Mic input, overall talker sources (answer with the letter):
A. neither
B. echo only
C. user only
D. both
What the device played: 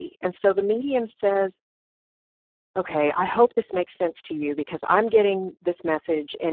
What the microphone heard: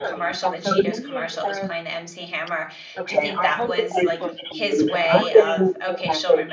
D